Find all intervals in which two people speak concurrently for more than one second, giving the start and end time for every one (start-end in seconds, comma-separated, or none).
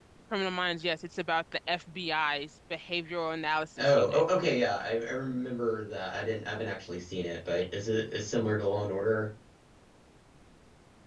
none